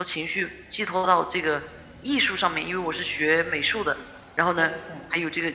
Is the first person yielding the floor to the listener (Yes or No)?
No